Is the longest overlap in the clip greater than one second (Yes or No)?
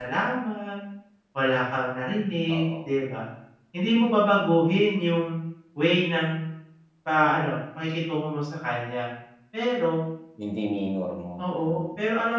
No